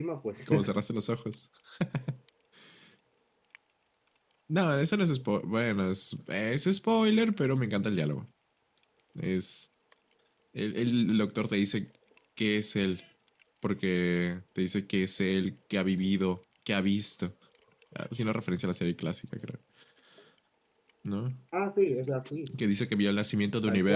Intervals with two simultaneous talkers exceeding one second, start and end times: none

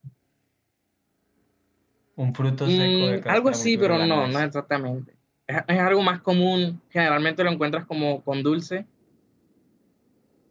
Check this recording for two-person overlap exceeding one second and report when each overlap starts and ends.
2.6-4.4

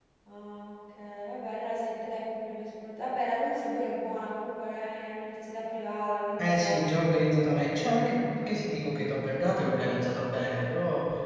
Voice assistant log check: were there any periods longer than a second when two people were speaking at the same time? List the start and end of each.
none

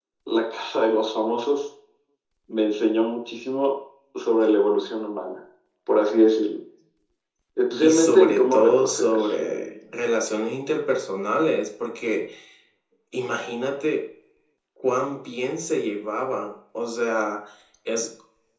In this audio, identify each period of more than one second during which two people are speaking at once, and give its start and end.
7.8-9.2

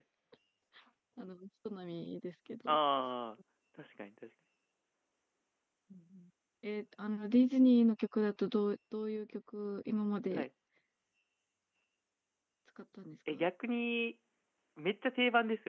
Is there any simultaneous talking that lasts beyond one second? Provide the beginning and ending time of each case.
none

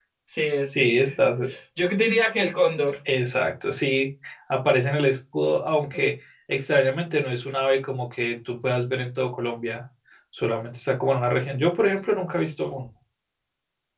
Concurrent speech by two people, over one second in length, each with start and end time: none

